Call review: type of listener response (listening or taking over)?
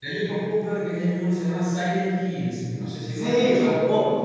taking over